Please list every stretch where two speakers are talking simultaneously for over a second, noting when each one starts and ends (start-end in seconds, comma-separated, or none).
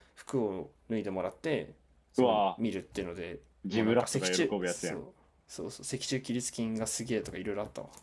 3.7-5.0